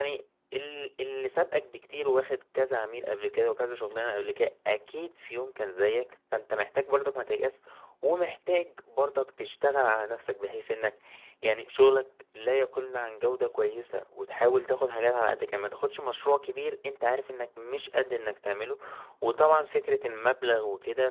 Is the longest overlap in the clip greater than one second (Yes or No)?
No